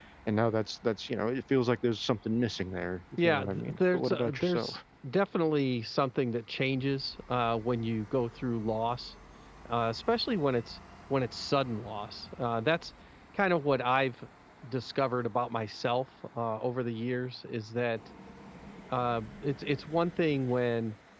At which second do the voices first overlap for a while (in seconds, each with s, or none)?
3.2 s